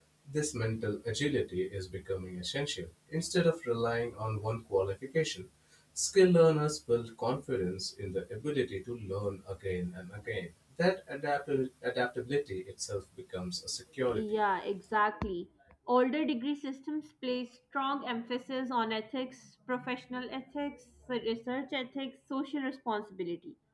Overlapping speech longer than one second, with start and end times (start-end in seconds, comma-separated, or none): none